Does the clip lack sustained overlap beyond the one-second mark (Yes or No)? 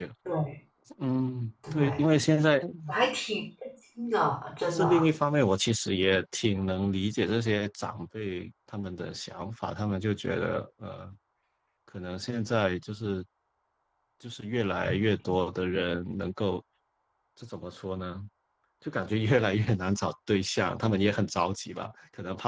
Yes